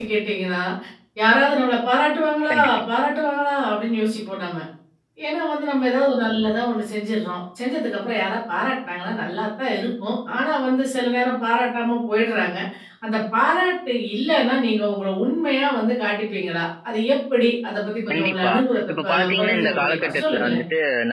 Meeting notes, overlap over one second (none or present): present